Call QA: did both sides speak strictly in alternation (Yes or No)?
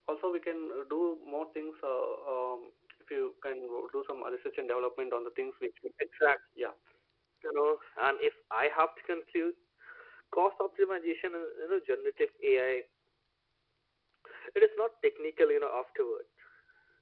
Yes